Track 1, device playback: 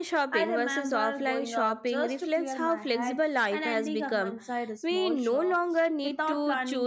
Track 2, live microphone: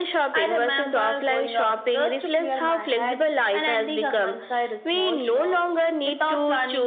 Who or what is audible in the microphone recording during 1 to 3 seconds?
echo only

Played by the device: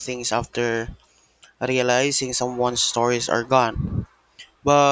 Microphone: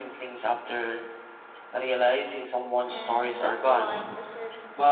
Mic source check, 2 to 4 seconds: both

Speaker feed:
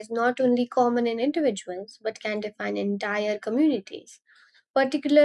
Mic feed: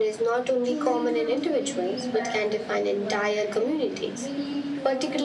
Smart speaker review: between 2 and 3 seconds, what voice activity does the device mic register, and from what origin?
both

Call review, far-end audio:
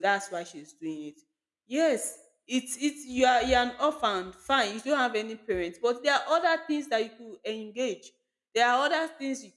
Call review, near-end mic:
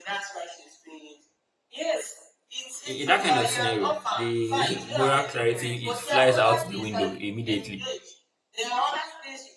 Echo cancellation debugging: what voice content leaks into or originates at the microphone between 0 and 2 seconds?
echo only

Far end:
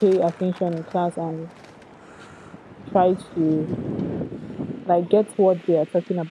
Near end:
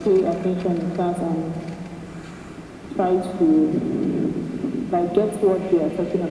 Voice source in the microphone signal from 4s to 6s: echo only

